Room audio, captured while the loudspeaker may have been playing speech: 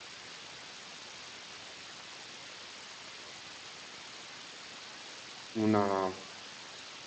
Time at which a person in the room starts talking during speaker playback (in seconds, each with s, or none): 5.5 s